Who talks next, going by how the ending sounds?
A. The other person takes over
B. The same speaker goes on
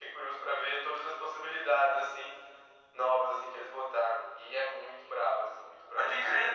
A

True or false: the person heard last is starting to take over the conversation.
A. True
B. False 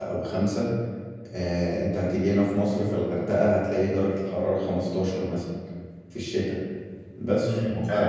A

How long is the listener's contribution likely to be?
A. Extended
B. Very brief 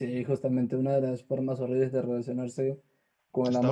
B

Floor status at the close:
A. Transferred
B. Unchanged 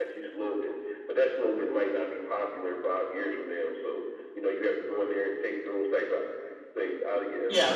A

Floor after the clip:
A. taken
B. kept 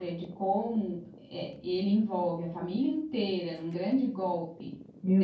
A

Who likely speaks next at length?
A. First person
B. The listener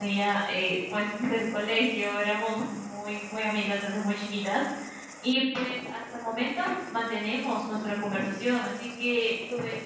A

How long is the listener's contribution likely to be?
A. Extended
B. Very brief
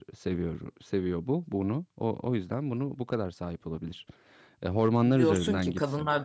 A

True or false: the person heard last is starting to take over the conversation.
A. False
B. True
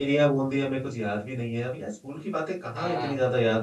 A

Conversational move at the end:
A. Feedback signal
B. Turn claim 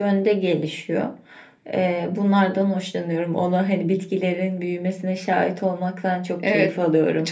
B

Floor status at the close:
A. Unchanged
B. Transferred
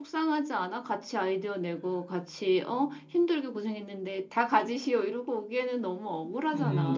B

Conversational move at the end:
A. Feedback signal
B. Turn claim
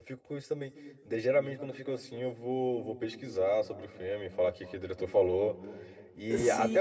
A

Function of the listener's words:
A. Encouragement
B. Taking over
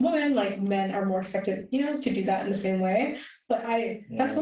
A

